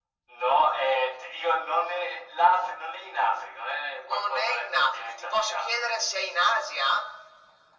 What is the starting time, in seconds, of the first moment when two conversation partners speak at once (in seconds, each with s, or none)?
4.0 s